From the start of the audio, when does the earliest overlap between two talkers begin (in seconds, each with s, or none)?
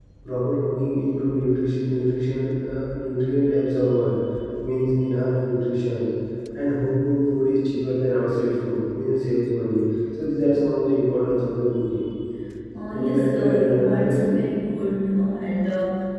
12.9 s